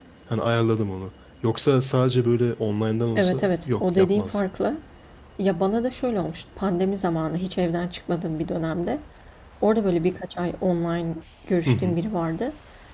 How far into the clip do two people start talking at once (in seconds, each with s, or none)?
3.1 s